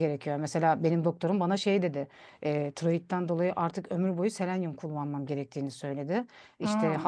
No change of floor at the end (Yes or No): Yes